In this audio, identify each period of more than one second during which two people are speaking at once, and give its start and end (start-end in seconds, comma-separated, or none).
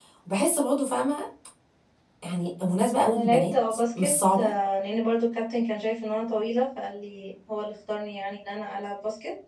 3.0-4.5